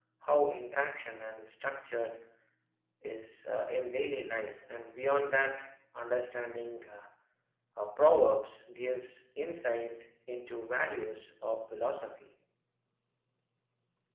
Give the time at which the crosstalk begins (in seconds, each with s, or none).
none